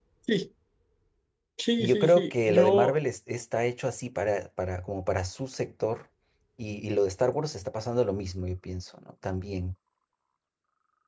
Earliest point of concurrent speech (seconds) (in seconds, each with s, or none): 1.8 s